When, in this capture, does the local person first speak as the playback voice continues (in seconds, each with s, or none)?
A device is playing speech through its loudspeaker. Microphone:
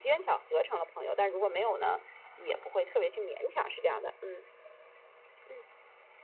none